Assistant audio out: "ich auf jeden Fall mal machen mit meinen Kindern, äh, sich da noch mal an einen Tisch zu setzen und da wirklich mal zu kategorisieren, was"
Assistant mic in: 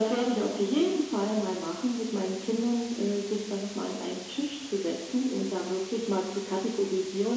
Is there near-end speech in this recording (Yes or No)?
No